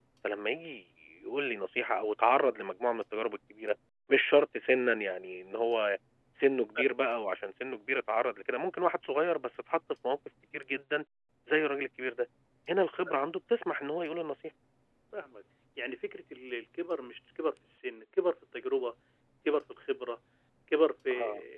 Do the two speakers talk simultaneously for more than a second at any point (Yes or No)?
No